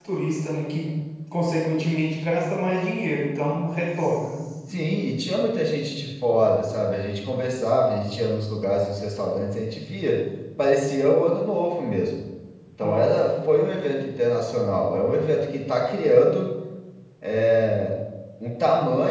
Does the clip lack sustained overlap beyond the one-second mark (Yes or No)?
Yes